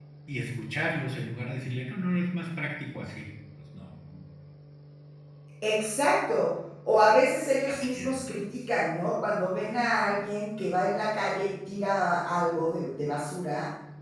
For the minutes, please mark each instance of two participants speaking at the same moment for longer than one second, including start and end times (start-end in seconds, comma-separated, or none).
none